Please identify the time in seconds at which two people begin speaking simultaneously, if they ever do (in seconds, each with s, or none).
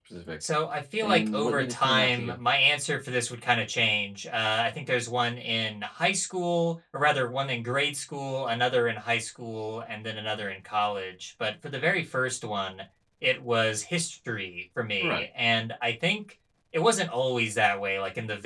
1.0 s